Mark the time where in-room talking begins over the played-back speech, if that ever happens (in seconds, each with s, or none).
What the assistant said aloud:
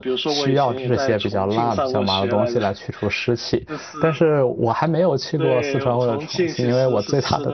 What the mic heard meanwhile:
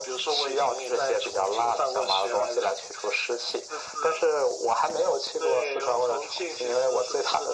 none